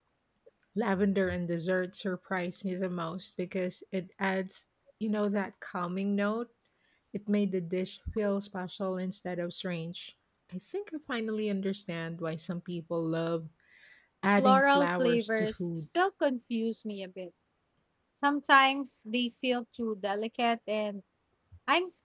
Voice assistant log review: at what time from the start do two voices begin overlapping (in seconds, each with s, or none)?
14.4 s